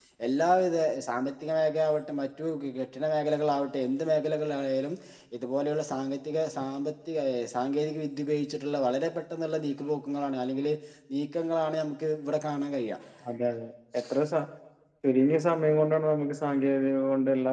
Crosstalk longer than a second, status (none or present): none